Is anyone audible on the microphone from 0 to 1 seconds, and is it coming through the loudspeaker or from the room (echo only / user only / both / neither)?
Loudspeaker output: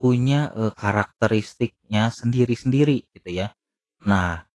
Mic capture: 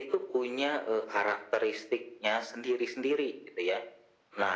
echo only